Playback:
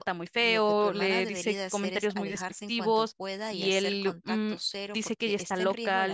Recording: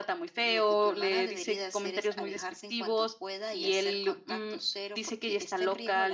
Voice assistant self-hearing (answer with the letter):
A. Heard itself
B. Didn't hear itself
A